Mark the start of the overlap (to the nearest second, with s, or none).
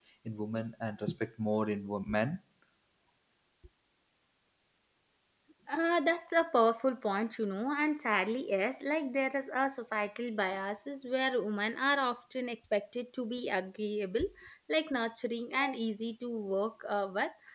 none